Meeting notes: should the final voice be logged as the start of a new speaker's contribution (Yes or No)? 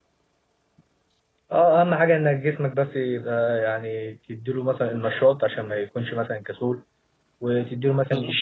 No